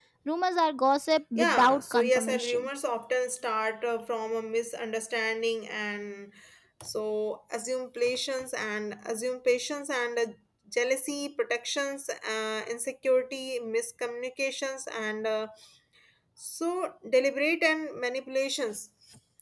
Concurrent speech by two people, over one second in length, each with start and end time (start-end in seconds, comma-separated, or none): 1.4-2.7